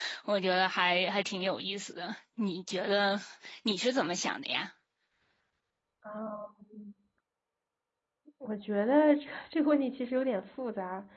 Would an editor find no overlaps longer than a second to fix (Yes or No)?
Yes